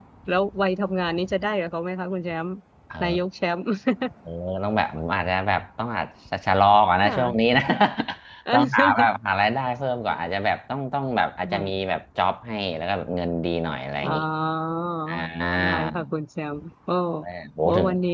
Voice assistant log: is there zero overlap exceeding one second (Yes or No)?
Yes